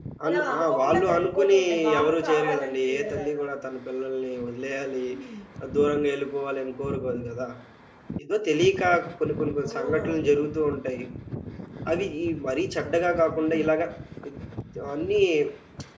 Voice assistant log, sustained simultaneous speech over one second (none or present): present